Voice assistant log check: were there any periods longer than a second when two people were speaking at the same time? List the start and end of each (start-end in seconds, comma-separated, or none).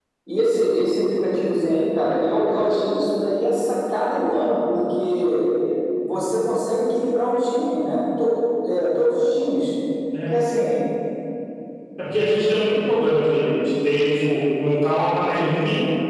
none